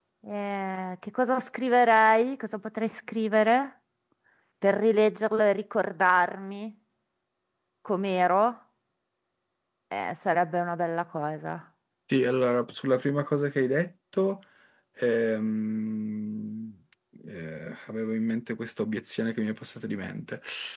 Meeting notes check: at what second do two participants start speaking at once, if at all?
none

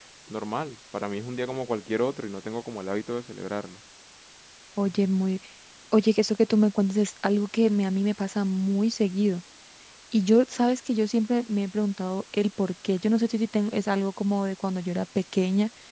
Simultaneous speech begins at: none

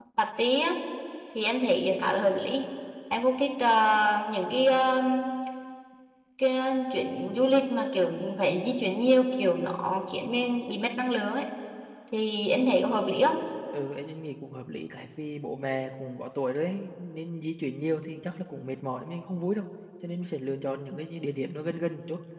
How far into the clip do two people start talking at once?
none

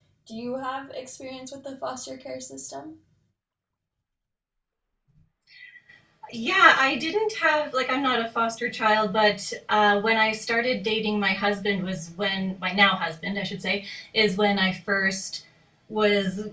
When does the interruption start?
none

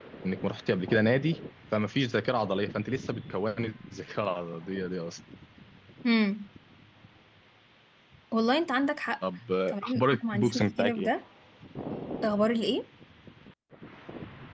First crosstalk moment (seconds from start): 9.7 s

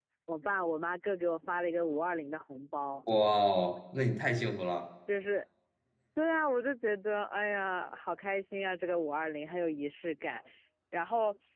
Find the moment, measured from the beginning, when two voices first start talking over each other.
none

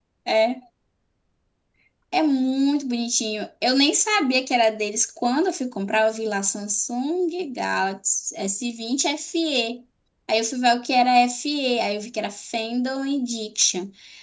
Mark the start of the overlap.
none

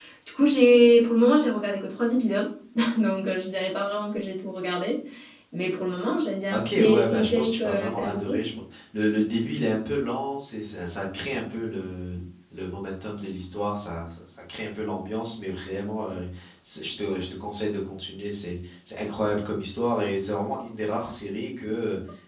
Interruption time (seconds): 6.5 s

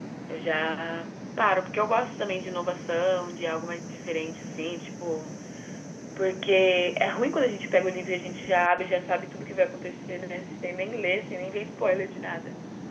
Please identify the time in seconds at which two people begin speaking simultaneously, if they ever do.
none

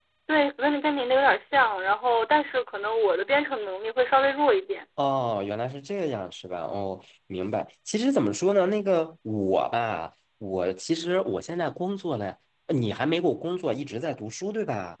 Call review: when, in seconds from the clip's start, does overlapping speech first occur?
none

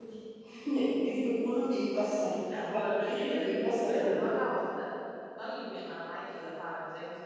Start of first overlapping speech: 2.7 s

